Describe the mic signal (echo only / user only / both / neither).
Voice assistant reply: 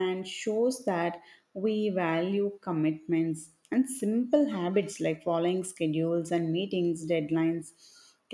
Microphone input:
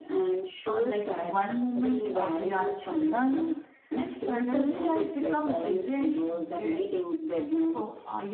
both